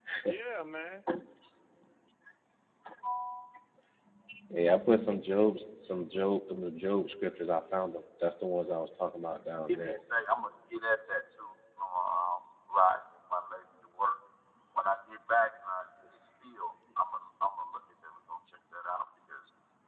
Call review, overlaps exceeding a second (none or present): none